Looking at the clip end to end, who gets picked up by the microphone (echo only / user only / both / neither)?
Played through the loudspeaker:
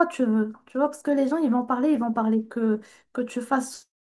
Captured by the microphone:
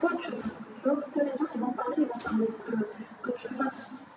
echo only